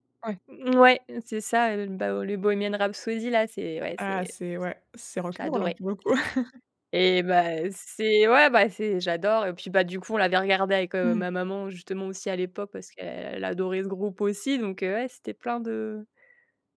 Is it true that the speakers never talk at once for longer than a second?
Yes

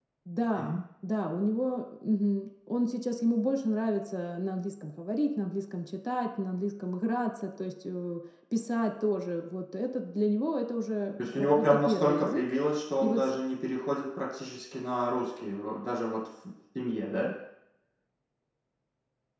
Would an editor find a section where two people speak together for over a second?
Yes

